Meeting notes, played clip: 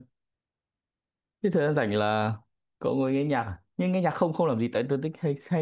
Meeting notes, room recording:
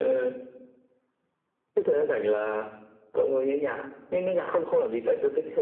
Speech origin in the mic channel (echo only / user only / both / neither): echo only